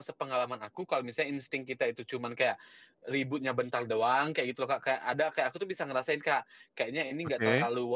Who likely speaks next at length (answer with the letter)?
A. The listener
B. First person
B